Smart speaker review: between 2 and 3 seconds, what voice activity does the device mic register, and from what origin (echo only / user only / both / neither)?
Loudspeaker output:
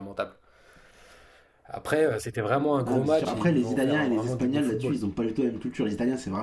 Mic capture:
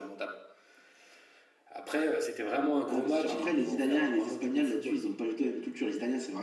echo only